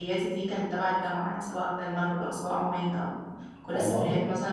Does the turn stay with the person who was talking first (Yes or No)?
Yes